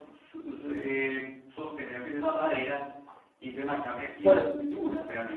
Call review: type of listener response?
listening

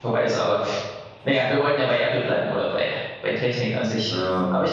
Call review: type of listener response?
listening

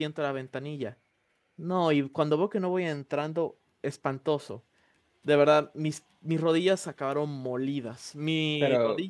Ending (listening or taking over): listening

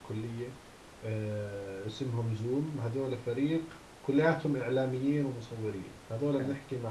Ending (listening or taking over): listening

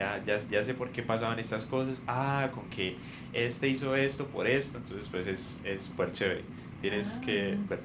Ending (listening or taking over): taking over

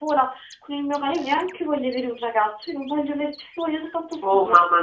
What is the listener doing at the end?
taking over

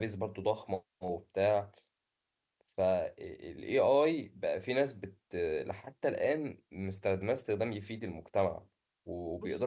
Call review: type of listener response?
listening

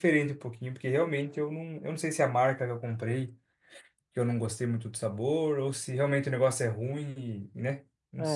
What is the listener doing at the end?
taking over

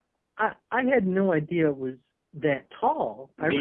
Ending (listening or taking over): listening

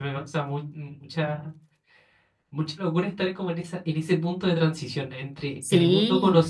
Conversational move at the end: listening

